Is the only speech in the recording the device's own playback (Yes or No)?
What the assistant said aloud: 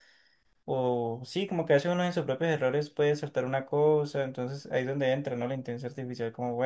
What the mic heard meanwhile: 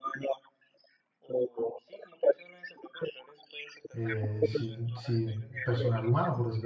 No